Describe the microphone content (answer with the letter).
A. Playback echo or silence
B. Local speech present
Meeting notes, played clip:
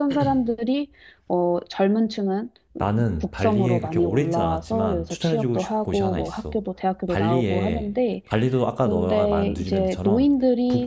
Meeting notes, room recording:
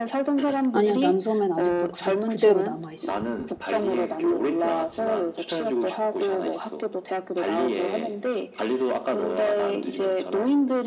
B